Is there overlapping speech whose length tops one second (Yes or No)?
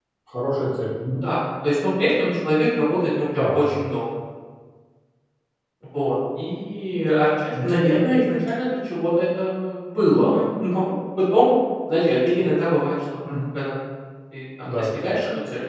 No